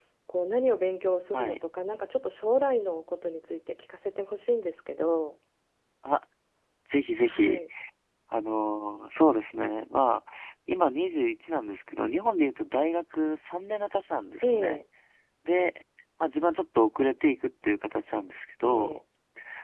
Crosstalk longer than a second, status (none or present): none